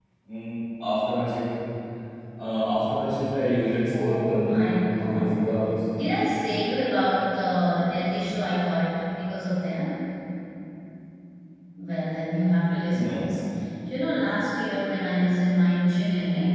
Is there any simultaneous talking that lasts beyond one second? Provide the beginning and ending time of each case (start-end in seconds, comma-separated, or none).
3.9-5.5